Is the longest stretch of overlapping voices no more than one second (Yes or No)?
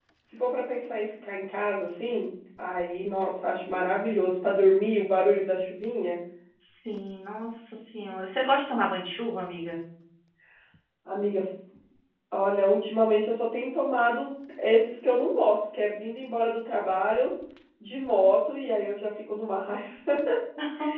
Yes